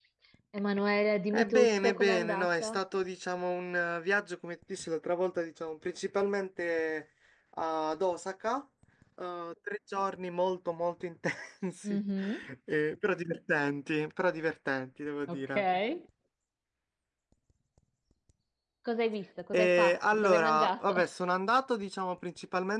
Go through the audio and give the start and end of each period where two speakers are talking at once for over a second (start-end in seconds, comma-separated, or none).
1.3-2.8, 19.5-20.9